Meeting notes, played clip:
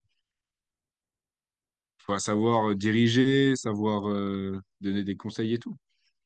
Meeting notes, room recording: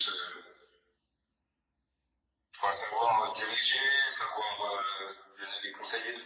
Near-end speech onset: none

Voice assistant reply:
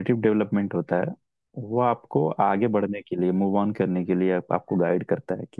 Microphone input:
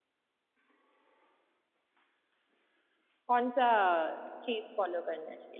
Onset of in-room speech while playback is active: 3 s

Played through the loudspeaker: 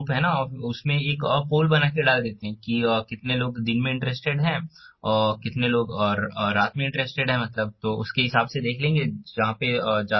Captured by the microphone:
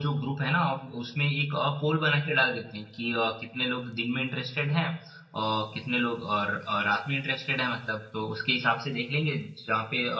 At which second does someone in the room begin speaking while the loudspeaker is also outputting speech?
none

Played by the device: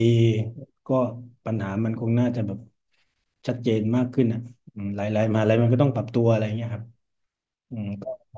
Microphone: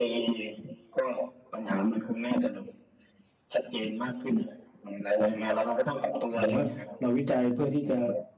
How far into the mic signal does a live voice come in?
6 s

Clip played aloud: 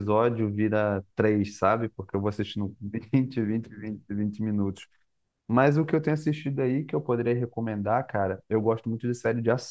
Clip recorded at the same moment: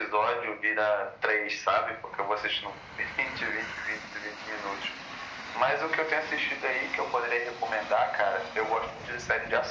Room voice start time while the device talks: none

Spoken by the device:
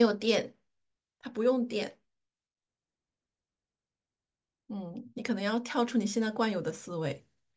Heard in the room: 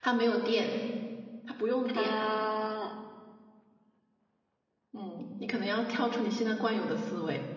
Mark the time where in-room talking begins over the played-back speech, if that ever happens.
2 s

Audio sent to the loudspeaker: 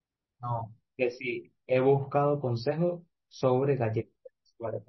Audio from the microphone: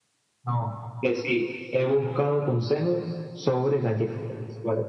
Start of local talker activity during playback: none

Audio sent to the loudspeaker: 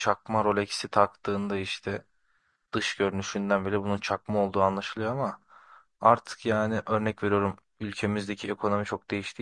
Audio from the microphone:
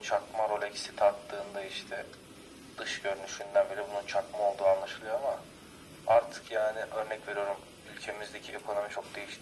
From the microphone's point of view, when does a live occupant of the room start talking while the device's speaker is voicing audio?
none

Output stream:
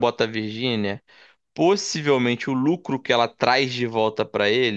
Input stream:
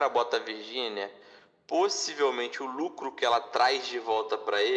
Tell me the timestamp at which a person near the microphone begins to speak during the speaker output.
none

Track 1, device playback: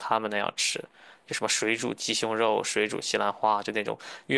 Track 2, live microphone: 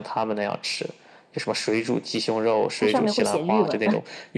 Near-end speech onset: 3 s

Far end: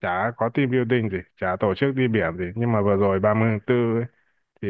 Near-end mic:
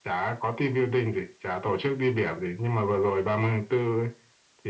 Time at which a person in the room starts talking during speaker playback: none

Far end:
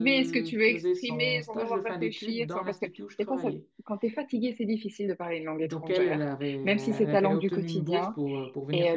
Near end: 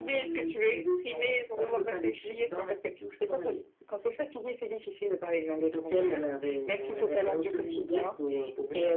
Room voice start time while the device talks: none

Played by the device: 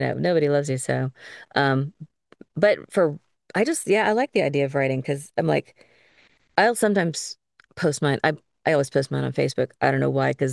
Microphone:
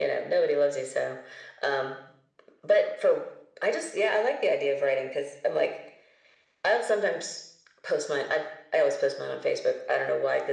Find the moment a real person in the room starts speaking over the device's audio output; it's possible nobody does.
none

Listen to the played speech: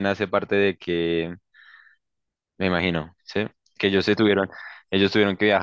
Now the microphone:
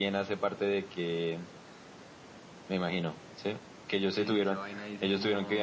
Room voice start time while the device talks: 4 s

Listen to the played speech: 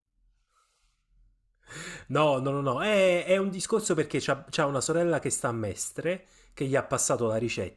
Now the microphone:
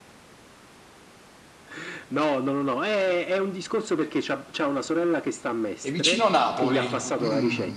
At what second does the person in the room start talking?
6 s

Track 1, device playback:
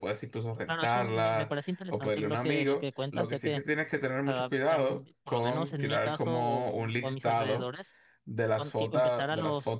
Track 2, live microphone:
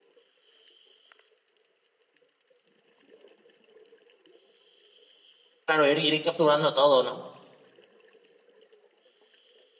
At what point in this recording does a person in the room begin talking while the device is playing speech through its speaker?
6 s

